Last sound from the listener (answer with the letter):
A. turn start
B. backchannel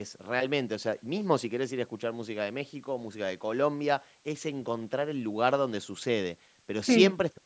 B